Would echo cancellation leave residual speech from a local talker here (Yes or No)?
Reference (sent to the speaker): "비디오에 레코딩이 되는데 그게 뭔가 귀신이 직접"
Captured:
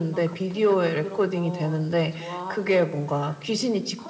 Yes